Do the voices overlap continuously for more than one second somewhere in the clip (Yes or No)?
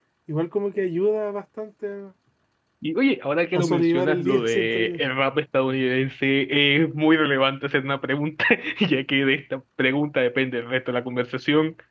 Yes